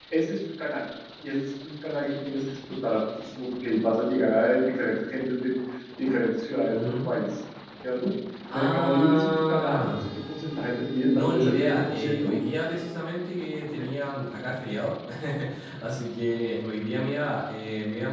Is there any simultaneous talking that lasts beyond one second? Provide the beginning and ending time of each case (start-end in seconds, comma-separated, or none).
8.5-10.1, 11.2-12.4